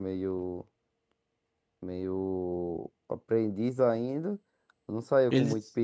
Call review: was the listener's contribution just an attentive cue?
Yes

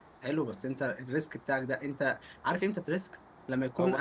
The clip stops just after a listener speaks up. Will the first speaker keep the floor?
No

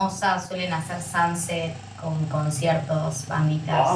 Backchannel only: No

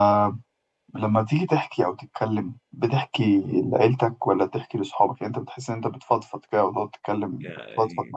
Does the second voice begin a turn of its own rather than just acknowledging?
Yes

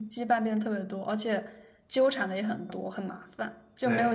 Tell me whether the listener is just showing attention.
Yes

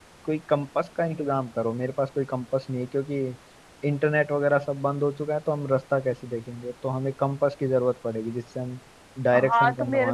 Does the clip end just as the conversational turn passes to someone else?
Yes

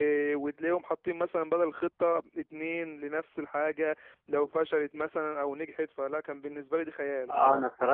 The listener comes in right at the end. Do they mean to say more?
Yes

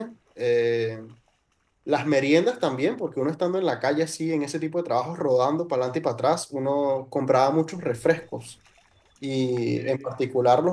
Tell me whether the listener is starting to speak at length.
No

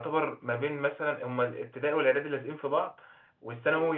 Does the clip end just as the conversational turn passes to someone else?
No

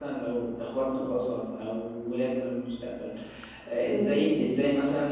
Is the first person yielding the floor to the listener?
No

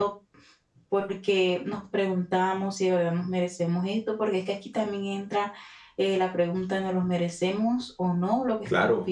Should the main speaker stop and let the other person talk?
Yes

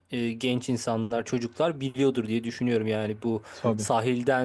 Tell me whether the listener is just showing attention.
Yes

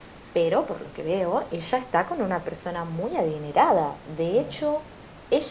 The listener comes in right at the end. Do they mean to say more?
No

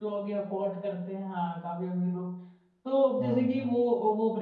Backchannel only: Yes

